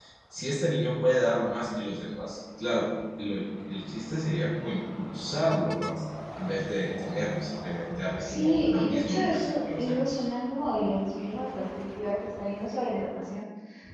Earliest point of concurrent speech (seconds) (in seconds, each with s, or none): 8.2 s